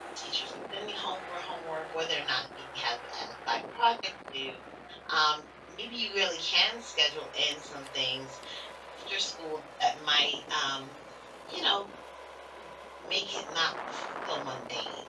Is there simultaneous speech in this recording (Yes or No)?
No